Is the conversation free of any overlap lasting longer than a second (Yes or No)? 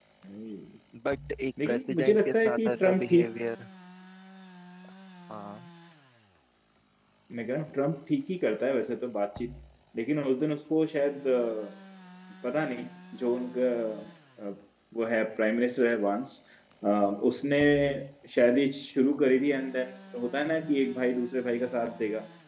No